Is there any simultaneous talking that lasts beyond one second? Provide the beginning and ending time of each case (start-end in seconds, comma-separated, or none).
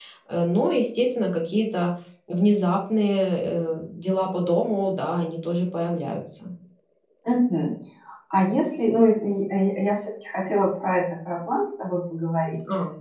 none